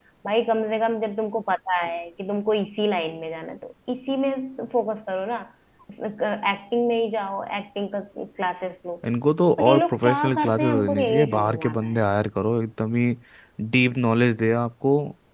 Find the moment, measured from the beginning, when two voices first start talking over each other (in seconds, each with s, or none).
9.6 s